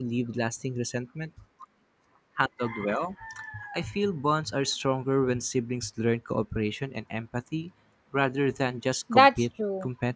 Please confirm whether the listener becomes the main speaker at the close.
Yes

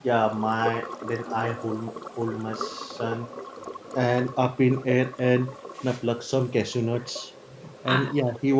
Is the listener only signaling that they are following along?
Yes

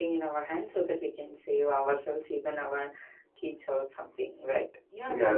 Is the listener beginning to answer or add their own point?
Yes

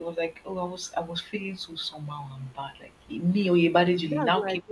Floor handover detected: Yes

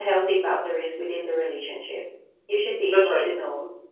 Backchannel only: Yes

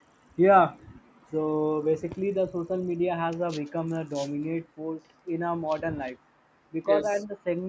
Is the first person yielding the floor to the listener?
No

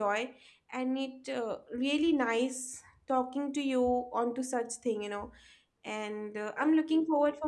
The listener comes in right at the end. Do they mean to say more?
No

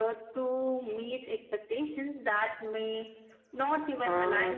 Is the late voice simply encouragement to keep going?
No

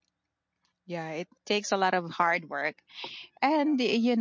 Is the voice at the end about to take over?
No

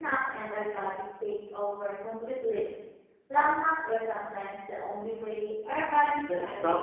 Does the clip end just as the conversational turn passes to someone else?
Yes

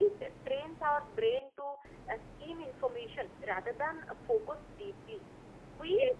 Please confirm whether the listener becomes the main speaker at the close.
No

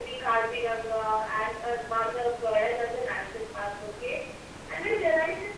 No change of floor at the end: Yes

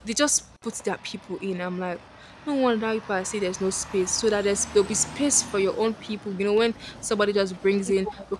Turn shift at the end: No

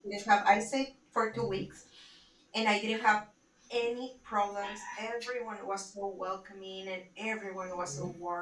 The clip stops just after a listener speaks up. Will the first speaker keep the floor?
Yes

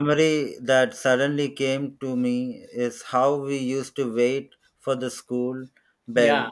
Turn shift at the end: No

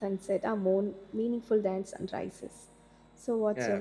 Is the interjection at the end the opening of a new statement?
Yes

